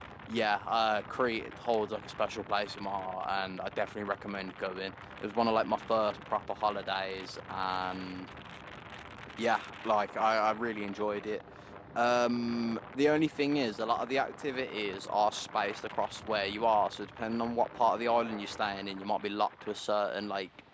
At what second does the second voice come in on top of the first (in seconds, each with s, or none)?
none